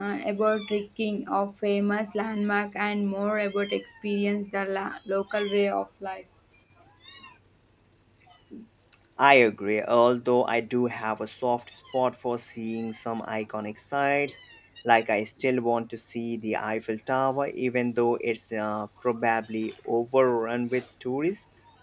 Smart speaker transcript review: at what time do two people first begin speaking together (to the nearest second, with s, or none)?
none